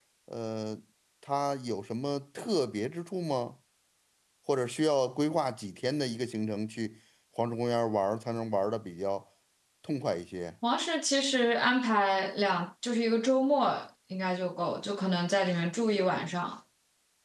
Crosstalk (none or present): none